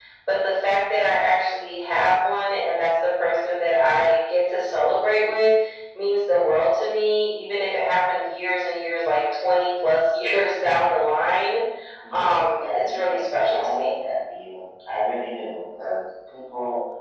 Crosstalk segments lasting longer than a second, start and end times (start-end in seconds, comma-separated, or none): 12.1-13.9